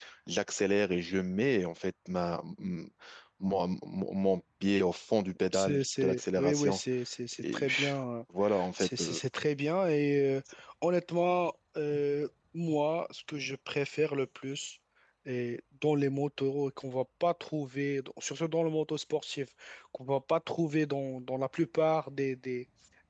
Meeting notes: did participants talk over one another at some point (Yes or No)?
Yes